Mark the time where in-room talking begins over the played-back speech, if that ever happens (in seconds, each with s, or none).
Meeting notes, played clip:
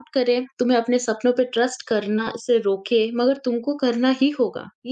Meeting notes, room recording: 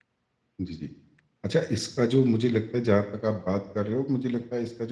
0.6 s